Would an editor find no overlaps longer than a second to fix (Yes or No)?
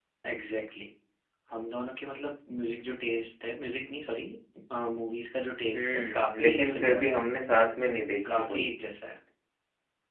No